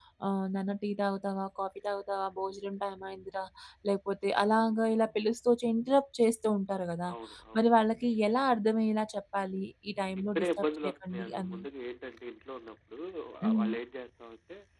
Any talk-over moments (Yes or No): Yes